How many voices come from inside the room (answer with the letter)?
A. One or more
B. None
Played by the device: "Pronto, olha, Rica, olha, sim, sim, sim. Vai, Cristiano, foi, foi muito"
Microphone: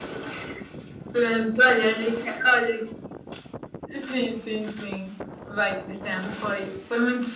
B